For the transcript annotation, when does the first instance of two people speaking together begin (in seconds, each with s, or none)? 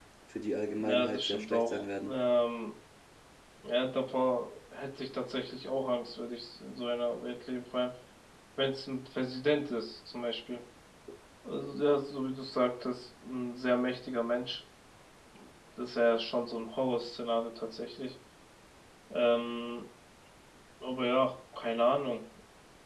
0.7 s